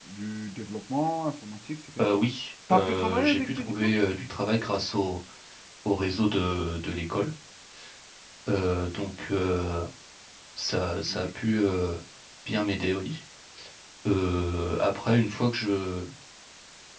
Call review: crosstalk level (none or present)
present